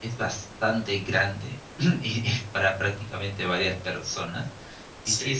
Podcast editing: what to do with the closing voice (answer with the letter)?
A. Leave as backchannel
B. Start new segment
A